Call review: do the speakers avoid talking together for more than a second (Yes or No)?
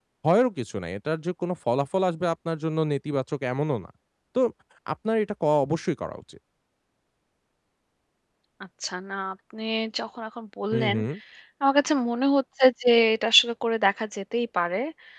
Yes